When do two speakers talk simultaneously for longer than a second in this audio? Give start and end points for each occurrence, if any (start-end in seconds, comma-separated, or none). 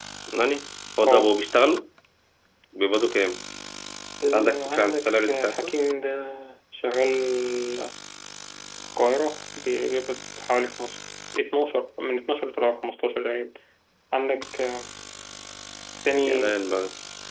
4.3-5.7